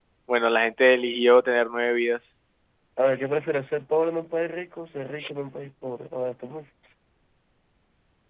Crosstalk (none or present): none